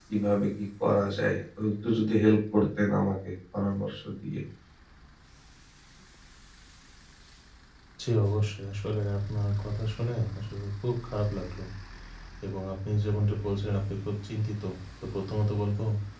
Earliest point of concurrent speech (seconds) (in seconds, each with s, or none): none